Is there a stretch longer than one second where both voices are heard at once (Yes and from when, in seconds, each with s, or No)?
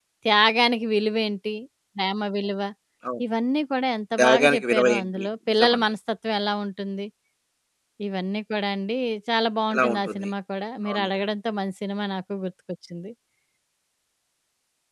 Yes, from 4.2 s